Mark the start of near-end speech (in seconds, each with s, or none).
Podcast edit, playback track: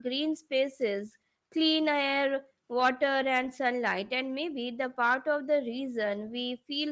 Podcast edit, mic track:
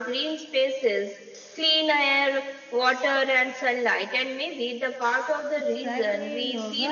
5.5 s